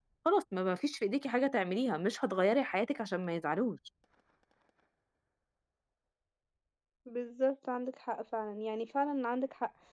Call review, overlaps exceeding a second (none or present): none